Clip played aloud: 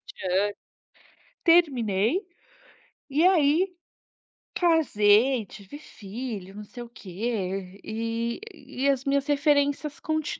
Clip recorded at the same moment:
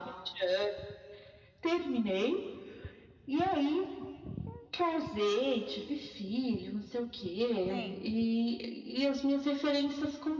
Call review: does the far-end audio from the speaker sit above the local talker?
Yes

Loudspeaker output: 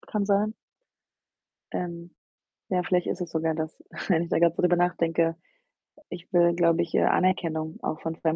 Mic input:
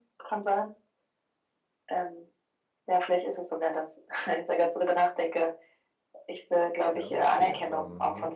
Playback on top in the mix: Yes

